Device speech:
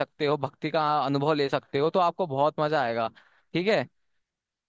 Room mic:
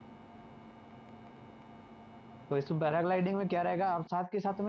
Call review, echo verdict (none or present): none